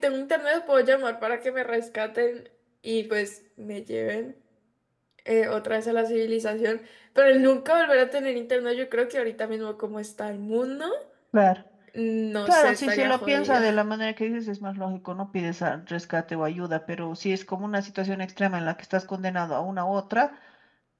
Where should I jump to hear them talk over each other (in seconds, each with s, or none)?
12.5 s